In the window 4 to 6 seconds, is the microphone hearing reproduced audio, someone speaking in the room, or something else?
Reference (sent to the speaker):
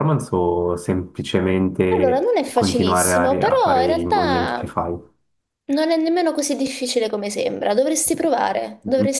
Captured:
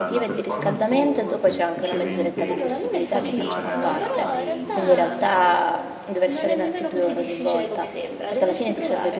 both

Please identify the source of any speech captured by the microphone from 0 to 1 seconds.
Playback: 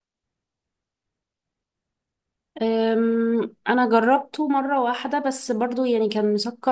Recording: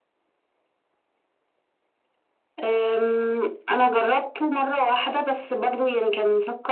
neither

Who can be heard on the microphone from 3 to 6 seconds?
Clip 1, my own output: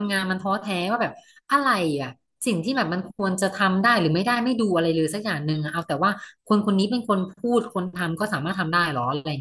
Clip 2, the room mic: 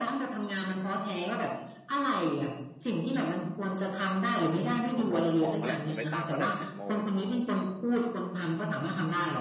both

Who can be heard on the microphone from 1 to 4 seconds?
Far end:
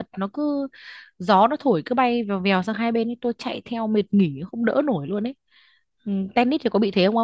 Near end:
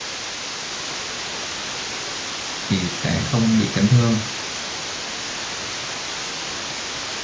user only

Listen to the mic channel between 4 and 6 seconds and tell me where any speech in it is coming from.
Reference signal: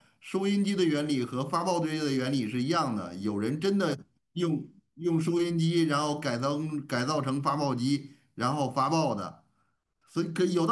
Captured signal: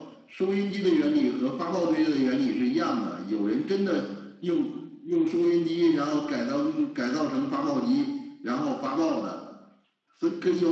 echo only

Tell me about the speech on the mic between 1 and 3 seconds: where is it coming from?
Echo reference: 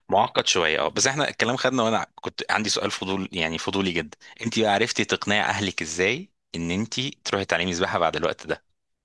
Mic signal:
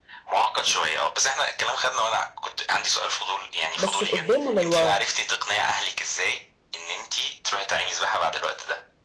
echo only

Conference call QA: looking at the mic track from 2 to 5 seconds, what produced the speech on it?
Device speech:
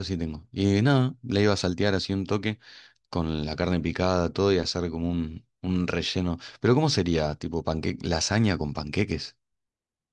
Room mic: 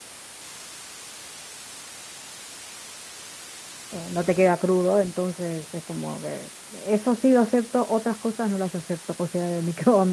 user only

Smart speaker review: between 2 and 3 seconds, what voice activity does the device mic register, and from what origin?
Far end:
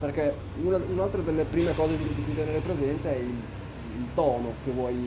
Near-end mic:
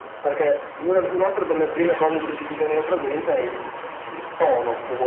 echo only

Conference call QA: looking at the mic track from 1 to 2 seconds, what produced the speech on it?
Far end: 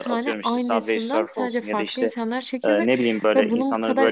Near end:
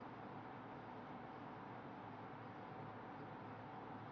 neither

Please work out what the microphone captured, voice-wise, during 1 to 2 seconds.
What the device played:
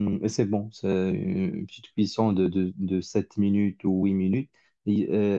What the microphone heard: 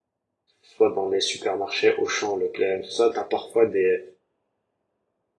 user only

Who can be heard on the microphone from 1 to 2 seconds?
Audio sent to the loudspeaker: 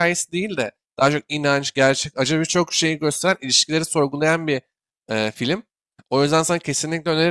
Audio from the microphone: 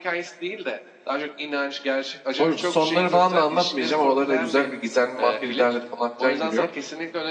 echo only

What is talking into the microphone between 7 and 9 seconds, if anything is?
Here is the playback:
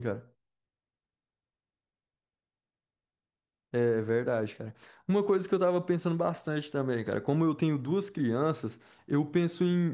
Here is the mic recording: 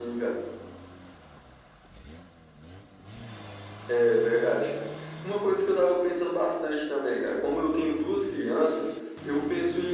echo only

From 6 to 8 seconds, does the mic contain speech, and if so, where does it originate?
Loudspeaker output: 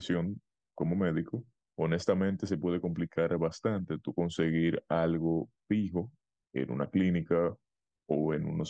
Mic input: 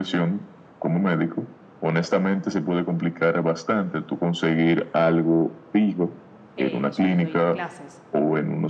both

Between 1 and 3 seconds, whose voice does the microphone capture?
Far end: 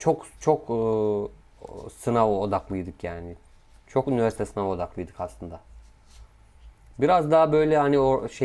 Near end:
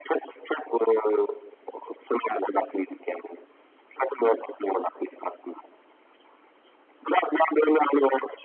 echo only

